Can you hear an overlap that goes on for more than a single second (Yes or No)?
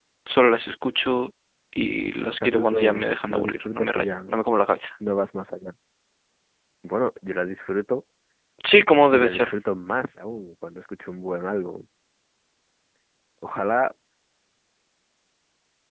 Yes